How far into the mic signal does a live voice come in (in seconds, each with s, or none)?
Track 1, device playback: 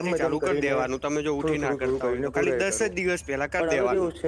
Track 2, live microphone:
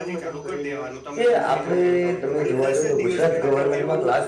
1.2 s